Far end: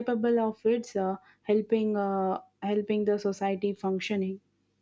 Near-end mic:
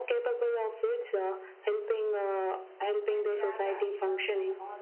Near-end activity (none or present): present